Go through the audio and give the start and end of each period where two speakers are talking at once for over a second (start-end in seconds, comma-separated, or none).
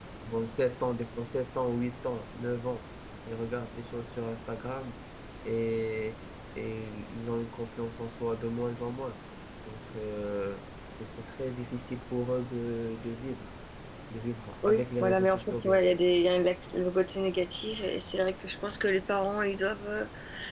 14.7-16.0